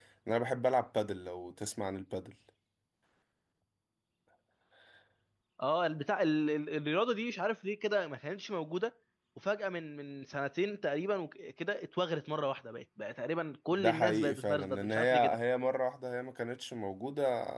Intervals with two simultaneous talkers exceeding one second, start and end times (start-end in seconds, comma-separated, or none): 13.7-15.4